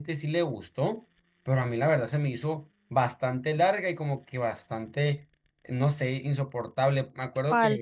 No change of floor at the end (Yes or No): Yes